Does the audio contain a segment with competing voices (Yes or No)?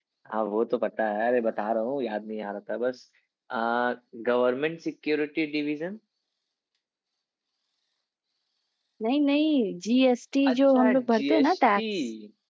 Yes